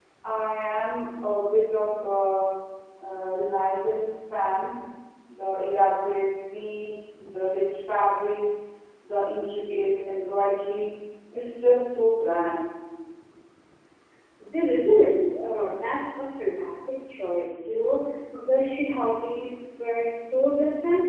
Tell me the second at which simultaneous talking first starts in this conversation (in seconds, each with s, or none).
none